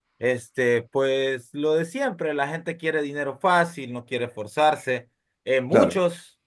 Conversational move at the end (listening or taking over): listening